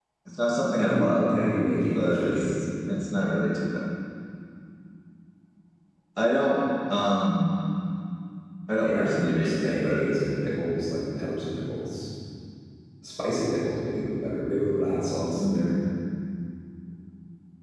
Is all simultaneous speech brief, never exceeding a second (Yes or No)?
No